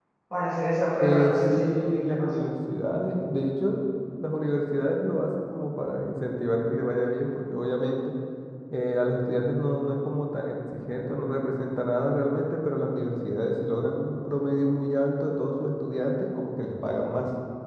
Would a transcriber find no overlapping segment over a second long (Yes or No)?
No